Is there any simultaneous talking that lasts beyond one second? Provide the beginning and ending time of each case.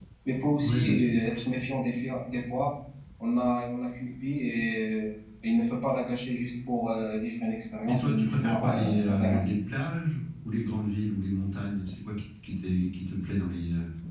7.9-9.4

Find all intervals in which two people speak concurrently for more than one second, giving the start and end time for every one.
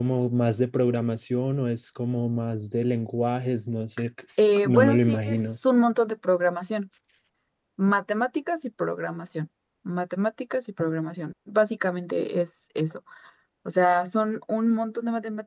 4.4-5.6

